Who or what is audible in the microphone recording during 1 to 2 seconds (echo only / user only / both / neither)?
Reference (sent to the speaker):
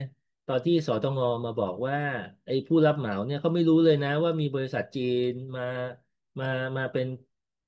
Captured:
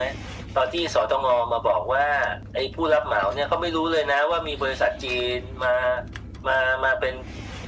echo only